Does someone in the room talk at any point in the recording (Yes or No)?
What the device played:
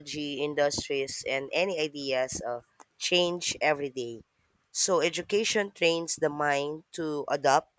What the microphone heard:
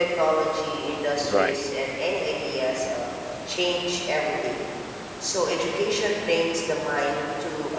Yes